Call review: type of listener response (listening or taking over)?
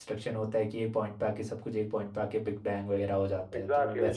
taking over